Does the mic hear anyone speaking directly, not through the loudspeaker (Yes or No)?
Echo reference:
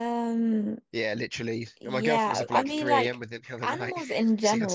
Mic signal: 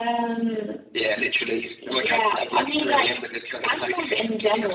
No